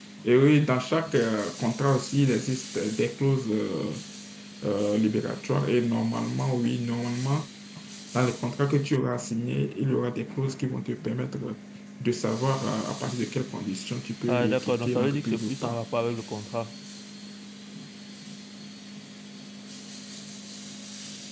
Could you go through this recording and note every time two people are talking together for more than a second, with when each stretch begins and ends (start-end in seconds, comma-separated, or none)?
14.3-15.8